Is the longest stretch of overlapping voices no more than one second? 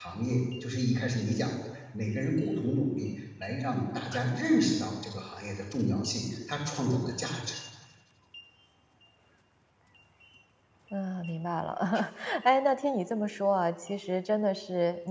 Yes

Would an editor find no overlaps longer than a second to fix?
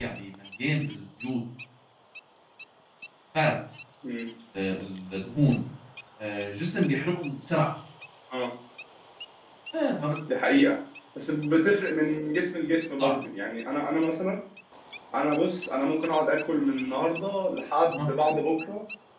Yes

